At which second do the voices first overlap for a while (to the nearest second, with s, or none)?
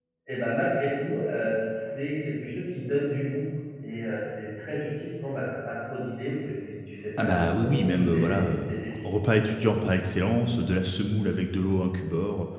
7 s